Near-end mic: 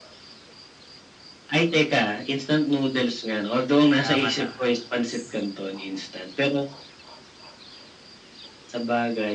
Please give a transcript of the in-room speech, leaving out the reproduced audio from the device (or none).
Tama, tama.